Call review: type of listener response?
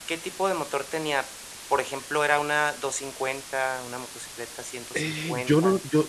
taking over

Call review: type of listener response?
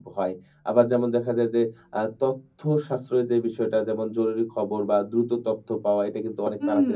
listening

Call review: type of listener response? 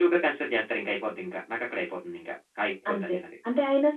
taking over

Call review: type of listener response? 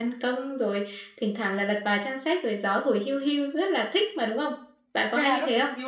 taking over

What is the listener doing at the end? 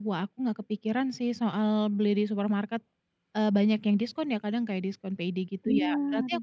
listening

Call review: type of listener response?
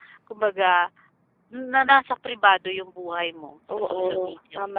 taking over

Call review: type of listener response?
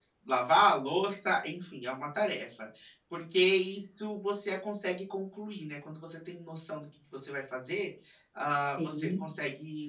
listening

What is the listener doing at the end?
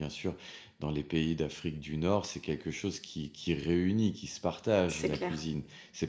listening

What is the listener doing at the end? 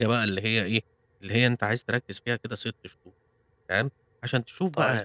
listening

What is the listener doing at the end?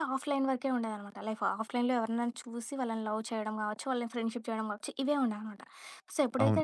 listening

